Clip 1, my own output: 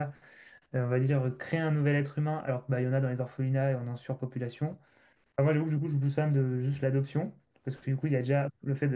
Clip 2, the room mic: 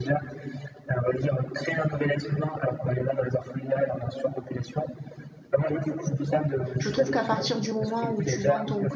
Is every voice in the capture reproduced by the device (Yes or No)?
No